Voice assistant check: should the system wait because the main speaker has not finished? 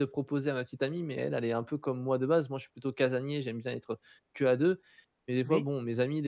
Yes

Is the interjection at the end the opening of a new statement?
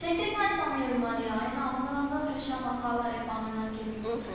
Yes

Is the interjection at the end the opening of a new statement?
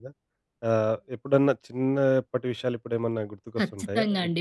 Yes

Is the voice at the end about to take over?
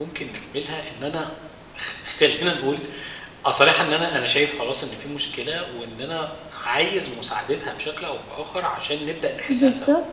Yes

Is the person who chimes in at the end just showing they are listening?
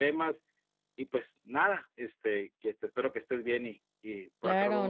No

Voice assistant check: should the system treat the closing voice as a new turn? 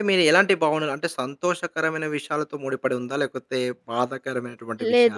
Yes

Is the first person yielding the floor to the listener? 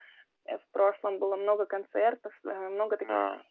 No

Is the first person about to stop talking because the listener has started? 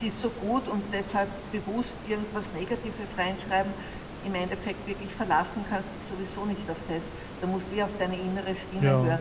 No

